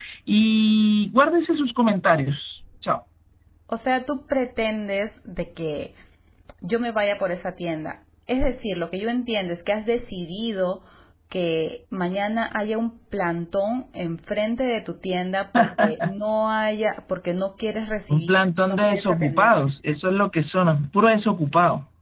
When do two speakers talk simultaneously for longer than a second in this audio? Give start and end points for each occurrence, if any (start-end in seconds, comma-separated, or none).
18.1-19.7